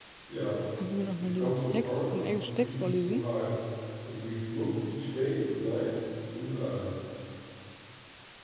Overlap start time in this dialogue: 1.2 s

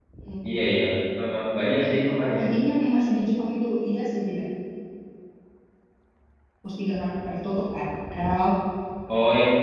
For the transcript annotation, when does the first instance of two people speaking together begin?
none

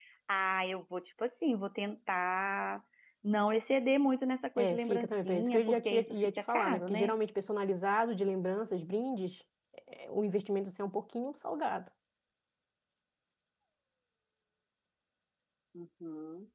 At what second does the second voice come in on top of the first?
4.6 s

